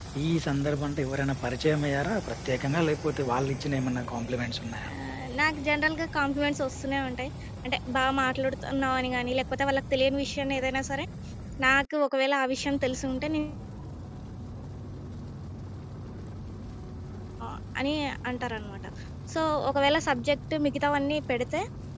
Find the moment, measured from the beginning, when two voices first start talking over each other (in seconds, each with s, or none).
none